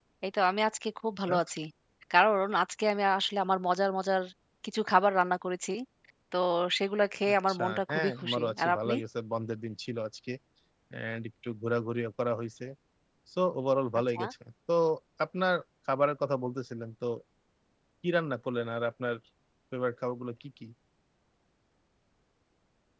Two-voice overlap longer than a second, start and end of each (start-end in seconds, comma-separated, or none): 7.3-8.9